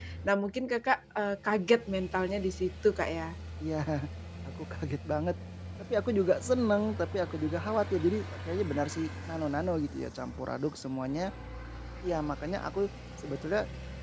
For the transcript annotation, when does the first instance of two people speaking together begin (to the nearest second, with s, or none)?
none